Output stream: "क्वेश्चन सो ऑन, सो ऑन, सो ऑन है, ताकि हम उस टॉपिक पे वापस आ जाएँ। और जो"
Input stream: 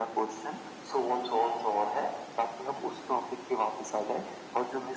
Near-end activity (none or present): none